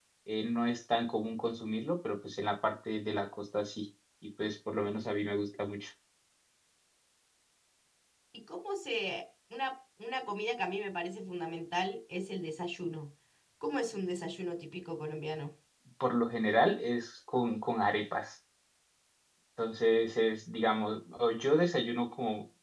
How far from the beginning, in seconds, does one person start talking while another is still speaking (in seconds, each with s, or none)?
none